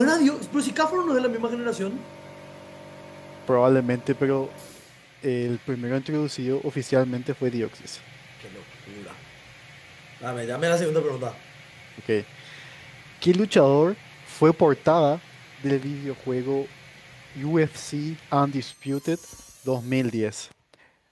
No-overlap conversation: Yes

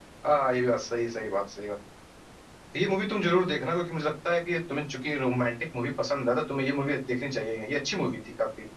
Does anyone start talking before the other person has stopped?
No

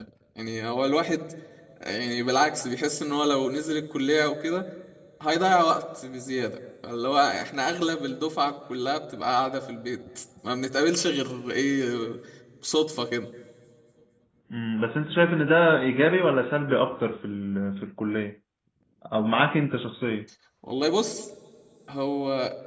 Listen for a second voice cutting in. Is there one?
No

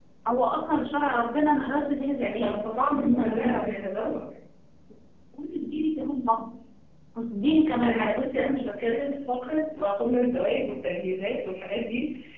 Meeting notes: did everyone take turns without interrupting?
No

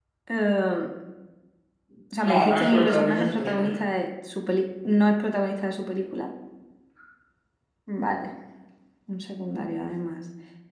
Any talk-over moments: Yes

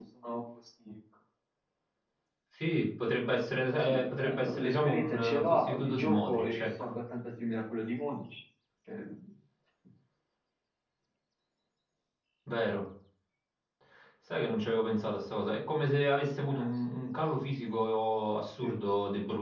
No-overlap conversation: No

